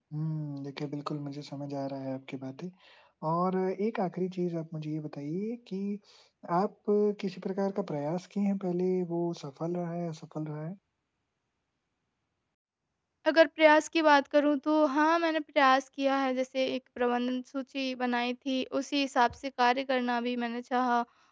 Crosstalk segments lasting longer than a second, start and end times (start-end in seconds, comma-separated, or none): none